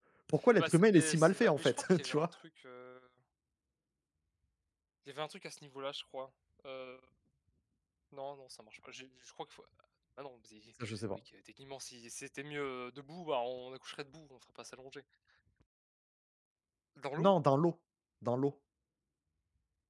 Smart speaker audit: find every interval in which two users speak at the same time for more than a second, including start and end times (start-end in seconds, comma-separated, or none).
0.6-2.3